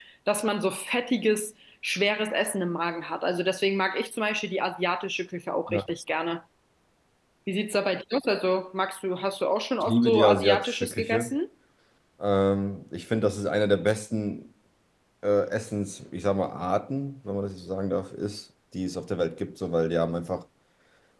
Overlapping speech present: Yes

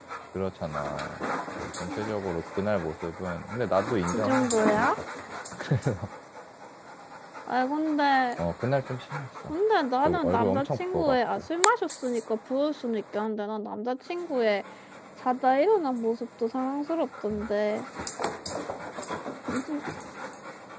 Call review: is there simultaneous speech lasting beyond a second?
Yes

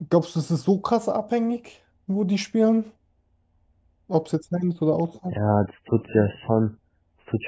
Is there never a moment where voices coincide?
Yes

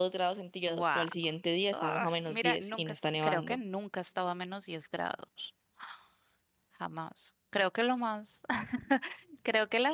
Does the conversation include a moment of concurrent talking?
Yes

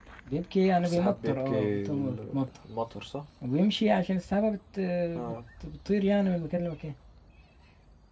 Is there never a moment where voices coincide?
No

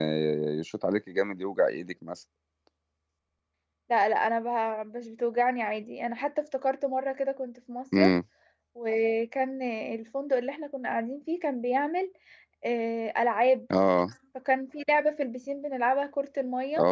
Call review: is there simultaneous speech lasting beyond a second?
No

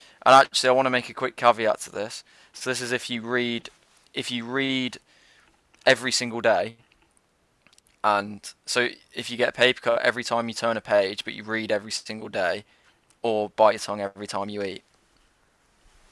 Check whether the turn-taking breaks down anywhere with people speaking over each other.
No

